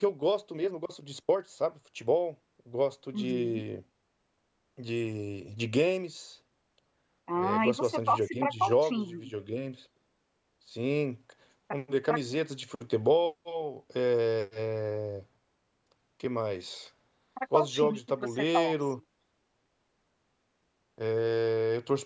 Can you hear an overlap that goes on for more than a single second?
Yes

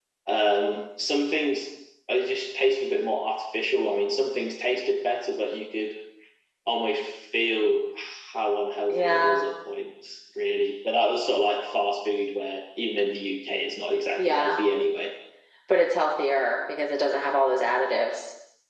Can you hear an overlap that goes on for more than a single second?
No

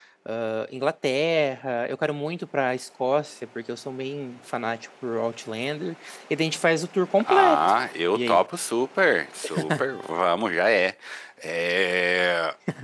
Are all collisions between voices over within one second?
Yes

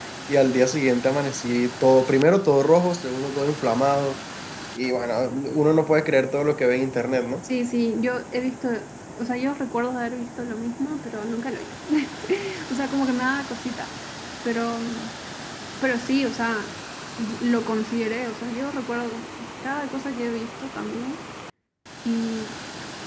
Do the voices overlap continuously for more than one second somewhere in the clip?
No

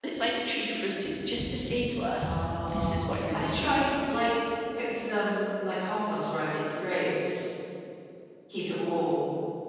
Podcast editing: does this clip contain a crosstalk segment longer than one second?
Yes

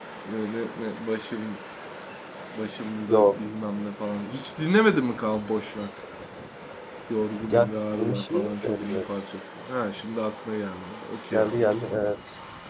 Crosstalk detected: Yes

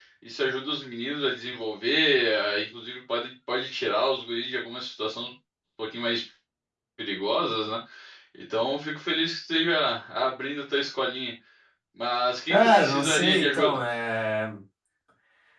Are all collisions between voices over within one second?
No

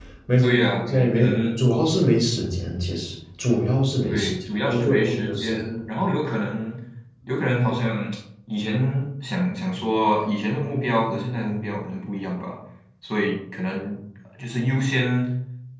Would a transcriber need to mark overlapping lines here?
Yes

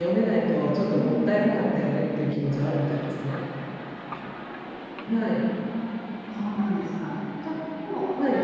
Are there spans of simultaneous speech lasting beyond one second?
No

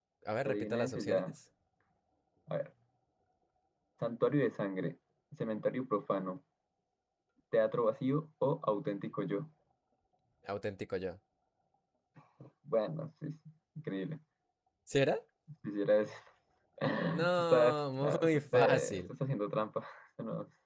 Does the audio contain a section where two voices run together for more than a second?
Yes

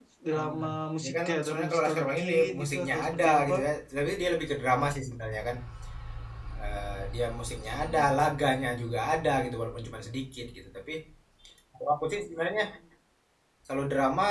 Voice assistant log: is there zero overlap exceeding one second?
No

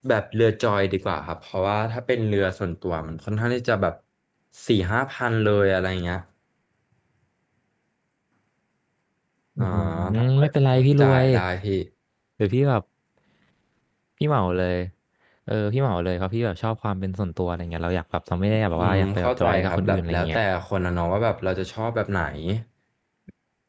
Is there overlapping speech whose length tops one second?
Yes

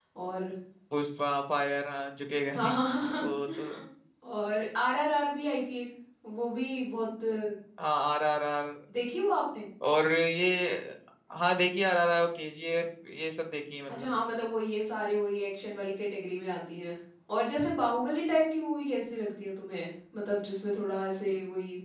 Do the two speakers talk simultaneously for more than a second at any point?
No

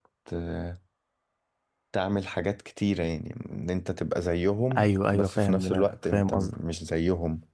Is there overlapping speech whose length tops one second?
Yes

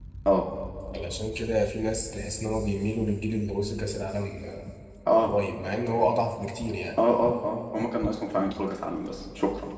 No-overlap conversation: Yes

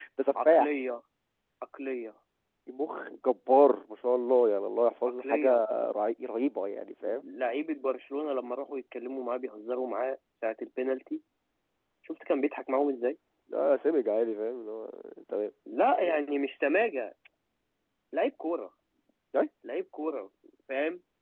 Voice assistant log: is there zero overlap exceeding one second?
Yes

